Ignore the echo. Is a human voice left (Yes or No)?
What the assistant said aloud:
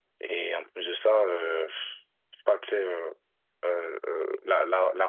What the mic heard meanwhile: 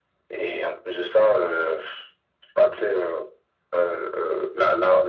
No